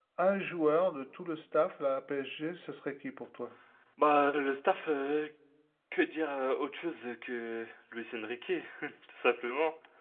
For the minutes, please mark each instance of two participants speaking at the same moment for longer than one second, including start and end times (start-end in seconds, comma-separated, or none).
none